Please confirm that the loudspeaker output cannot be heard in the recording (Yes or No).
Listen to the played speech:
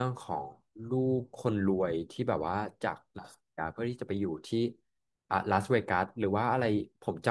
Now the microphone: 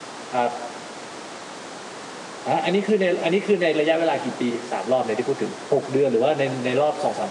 Yes